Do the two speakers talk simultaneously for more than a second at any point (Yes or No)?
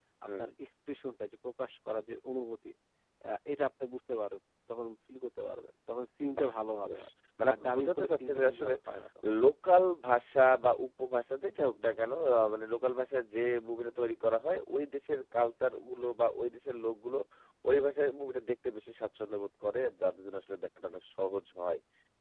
Yes